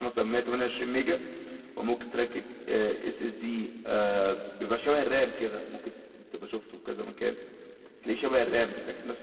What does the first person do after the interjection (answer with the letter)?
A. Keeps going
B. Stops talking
A